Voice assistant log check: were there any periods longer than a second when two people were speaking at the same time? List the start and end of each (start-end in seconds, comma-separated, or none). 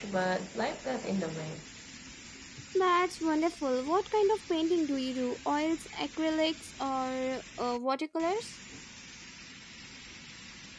none